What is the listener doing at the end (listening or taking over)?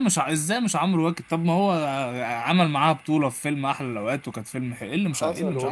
taking over